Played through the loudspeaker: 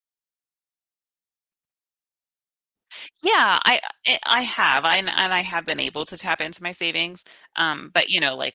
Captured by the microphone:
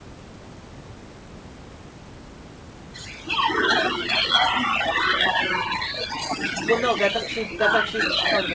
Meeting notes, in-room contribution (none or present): present